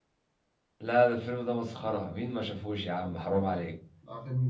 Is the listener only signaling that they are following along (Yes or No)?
No